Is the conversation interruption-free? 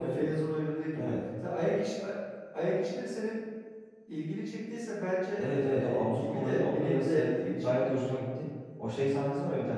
No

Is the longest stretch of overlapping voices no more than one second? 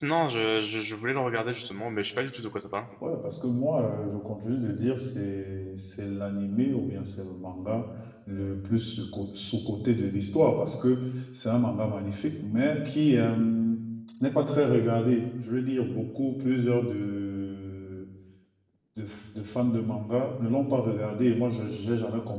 Yes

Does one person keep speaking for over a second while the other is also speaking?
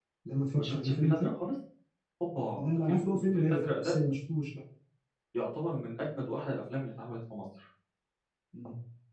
Yes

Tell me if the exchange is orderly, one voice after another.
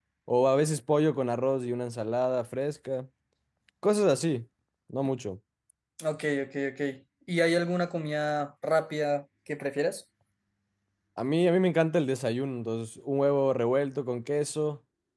Yes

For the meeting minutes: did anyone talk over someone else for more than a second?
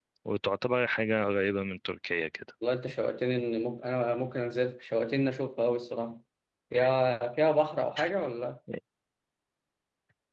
No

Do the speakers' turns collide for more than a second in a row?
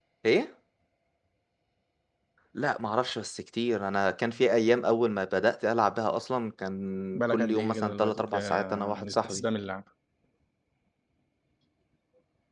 Yes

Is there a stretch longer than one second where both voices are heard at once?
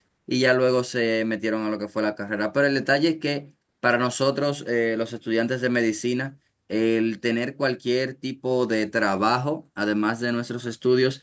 No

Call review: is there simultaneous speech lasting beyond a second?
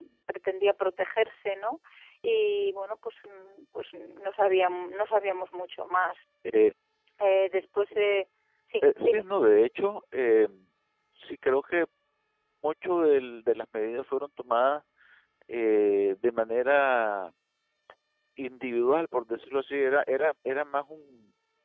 No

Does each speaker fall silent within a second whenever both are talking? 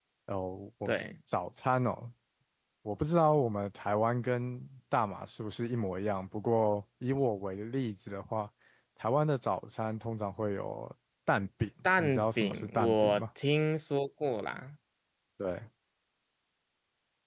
No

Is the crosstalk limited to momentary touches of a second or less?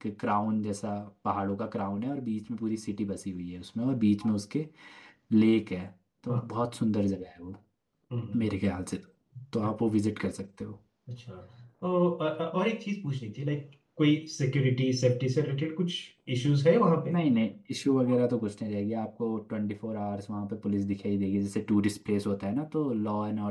Yes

